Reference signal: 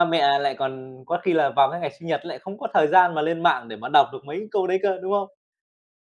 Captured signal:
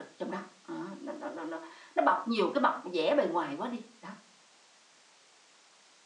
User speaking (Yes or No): Yes